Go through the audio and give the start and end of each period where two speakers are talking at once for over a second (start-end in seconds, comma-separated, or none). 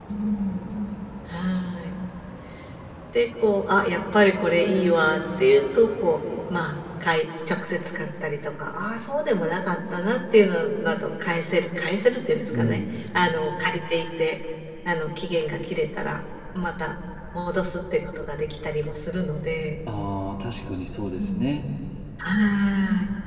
none